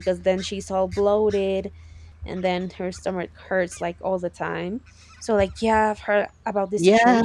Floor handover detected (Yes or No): Yes